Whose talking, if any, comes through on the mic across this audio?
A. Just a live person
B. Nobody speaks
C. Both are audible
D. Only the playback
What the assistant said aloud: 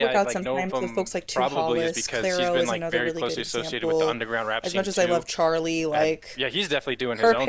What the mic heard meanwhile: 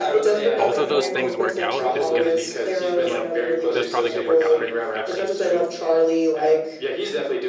C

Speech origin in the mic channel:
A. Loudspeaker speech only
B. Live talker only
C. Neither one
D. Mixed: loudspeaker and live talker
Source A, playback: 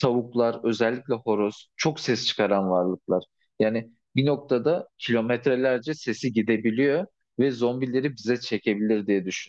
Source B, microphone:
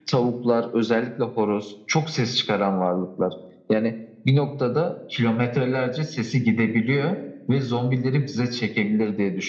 A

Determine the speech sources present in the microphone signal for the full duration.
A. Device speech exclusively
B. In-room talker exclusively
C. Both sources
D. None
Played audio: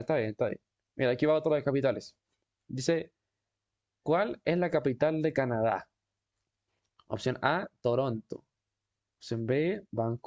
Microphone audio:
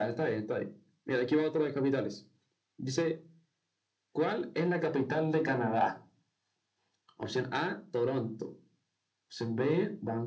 A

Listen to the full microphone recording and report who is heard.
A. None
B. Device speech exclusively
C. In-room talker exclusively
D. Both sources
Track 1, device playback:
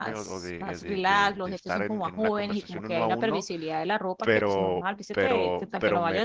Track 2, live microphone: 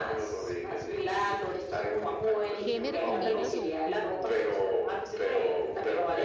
D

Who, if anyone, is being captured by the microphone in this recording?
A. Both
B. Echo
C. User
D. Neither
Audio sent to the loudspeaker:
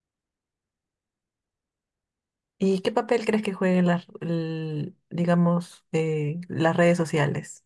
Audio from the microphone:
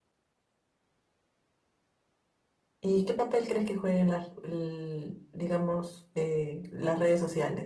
B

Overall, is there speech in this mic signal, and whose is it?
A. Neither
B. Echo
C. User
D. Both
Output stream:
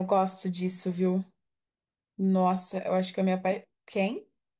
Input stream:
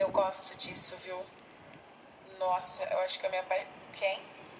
B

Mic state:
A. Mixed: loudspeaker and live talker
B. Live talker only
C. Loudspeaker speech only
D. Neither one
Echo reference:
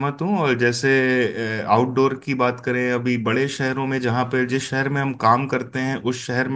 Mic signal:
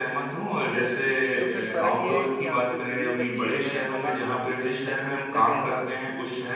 A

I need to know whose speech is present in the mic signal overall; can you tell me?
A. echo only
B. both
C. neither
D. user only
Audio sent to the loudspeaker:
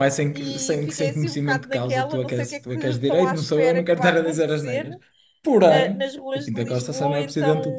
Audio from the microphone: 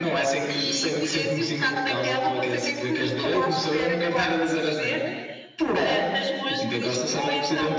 A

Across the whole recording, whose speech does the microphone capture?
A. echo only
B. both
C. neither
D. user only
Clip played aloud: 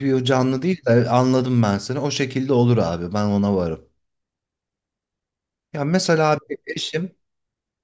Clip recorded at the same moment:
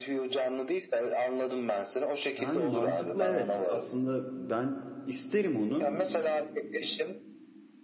B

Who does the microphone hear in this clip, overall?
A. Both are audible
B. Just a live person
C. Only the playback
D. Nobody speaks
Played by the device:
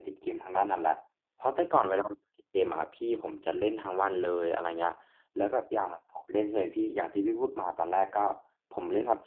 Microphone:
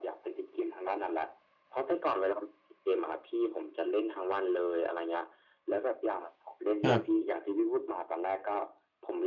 A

